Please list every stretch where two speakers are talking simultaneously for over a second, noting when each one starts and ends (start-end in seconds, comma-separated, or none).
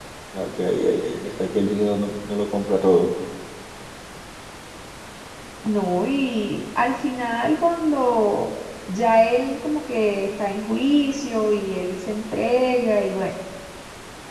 none